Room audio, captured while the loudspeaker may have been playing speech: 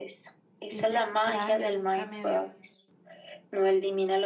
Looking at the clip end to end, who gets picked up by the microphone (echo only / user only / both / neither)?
both